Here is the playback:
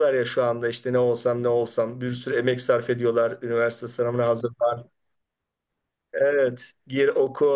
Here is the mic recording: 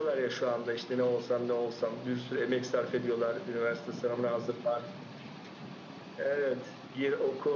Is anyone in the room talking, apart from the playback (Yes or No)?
No